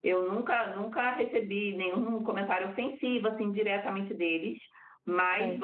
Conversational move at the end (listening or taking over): listening